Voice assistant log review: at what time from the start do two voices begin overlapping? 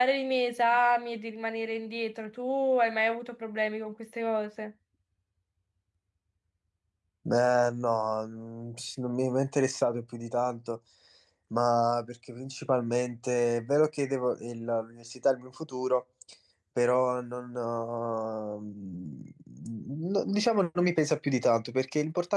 none

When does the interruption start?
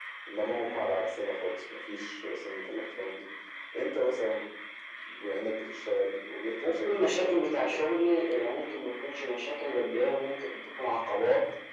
7 s

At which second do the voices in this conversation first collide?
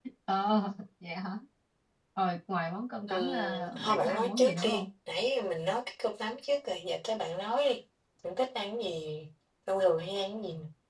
3 s

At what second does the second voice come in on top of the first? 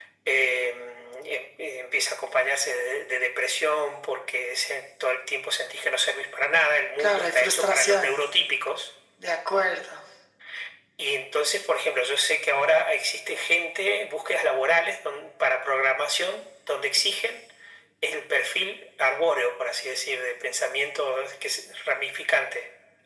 7 s

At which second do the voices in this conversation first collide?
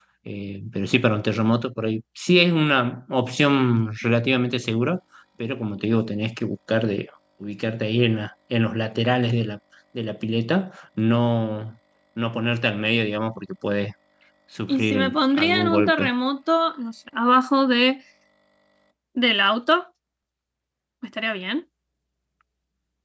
15 s

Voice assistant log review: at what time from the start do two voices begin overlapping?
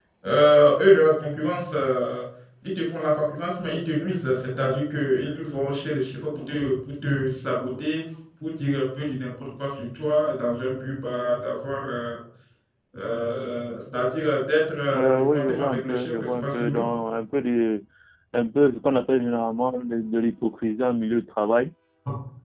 15 s

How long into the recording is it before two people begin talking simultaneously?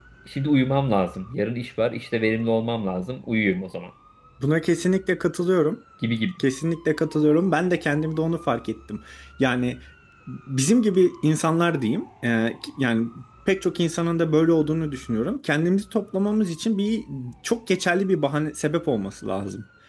none

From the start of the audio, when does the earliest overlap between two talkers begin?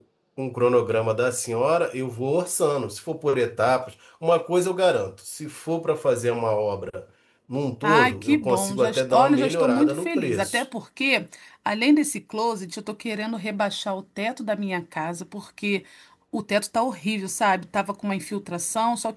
8 s

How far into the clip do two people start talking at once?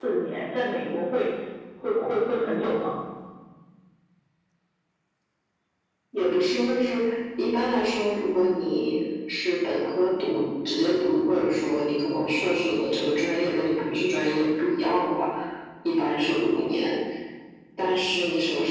none

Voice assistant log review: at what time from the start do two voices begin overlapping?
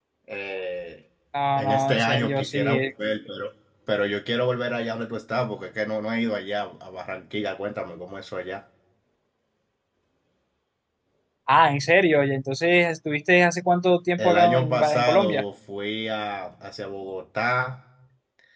2 s

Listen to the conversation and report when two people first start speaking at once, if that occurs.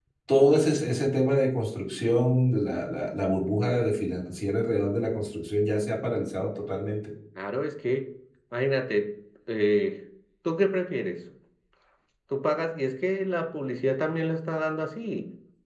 none

